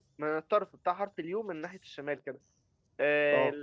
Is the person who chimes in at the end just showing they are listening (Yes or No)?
Yes